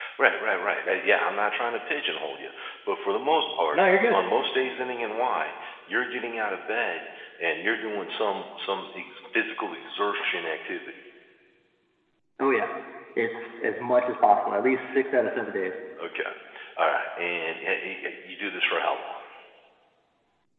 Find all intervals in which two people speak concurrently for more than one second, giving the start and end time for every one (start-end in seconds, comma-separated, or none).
none